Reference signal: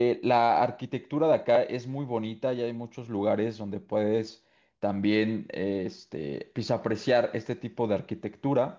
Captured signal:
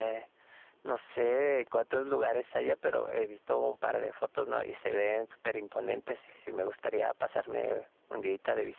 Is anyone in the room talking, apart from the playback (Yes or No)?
Yes